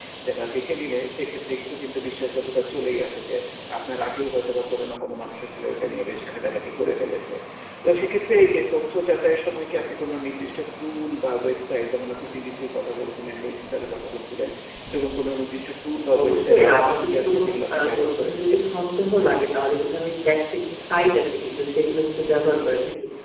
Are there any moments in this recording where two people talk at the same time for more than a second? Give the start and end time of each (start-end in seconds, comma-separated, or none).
16.2-18.6